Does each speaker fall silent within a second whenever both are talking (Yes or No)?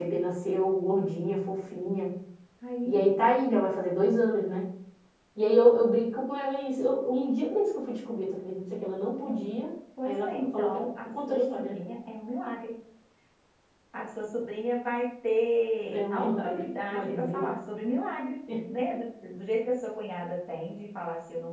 No